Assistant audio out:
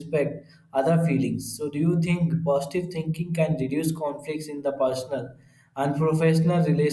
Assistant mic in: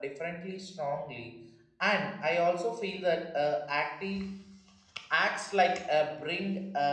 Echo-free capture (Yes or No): Yes